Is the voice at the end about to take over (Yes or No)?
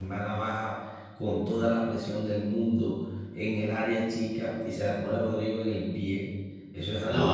No